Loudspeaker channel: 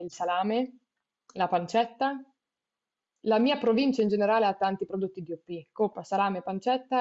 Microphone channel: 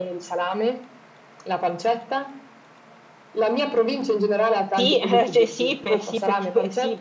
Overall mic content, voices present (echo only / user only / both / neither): both